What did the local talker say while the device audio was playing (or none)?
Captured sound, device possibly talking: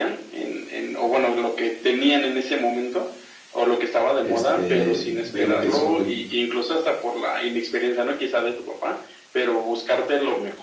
este, veo que son